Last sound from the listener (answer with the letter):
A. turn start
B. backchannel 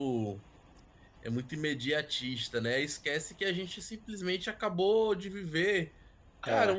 B